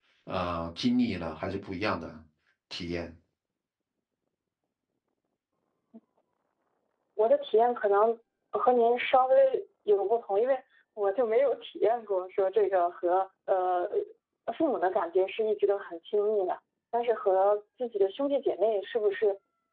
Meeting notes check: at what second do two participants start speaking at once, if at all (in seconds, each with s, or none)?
none